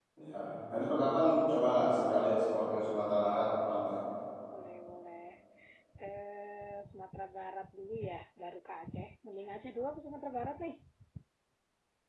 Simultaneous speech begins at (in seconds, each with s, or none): none